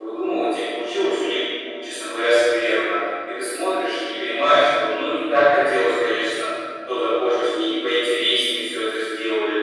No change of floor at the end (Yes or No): No